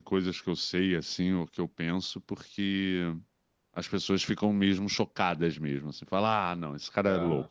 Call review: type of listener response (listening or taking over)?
listening